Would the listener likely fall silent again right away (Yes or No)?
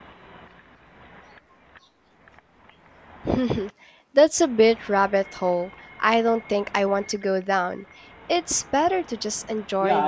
No